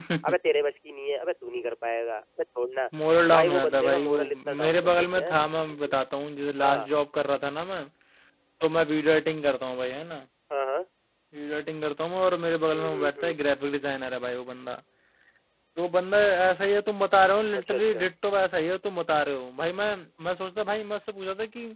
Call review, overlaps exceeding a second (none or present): present